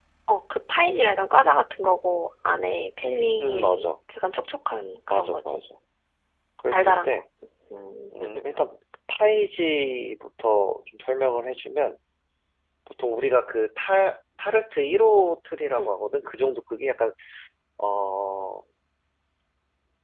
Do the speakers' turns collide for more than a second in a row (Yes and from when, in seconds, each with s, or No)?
No